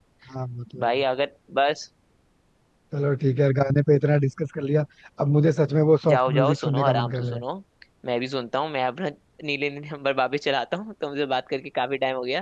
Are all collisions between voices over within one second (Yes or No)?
No